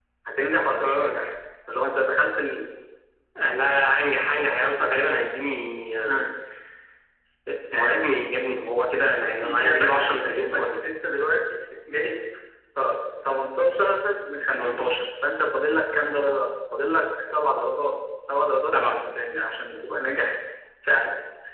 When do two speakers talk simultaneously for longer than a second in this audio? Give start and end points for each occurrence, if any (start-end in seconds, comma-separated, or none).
9.4-10.6